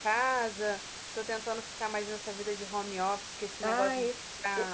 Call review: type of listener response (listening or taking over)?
taking over